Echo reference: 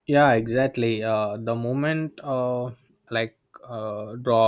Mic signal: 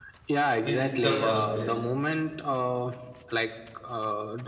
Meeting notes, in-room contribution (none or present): present